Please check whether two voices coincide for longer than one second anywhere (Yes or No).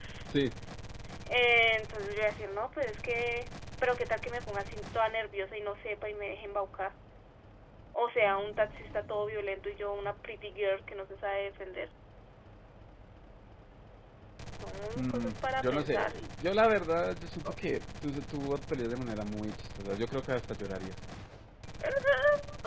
Yes